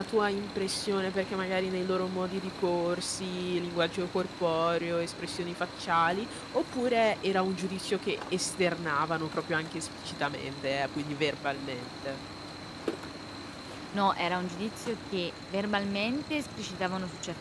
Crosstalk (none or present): none